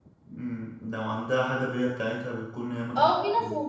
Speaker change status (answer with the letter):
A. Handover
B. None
A